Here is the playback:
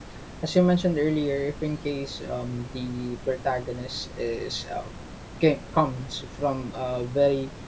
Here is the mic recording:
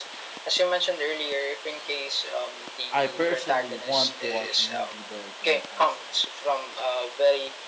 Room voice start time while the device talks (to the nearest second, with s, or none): 3 s